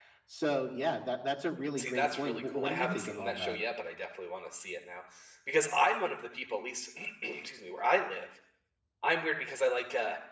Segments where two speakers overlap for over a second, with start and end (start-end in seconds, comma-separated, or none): 1.8-3.5